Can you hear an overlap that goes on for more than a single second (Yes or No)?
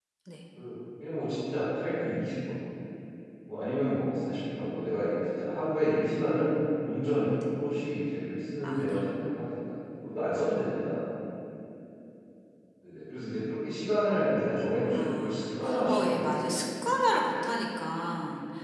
Yes